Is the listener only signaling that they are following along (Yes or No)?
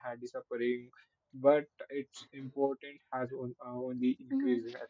No